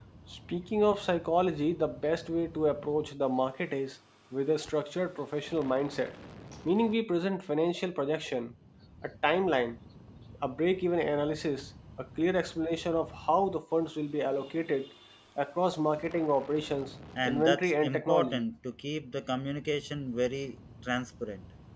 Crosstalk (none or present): present